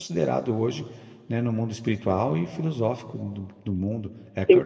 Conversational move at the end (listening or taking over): taking over